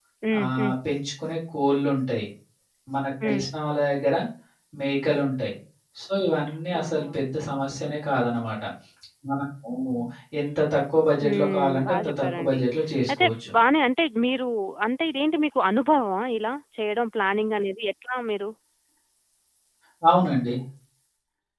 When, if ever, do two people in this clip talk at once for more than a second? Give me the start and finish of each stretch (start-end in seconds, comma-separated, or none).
11.2-12.6